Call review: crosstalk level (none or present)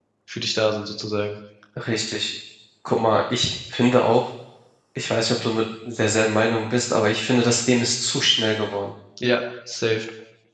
none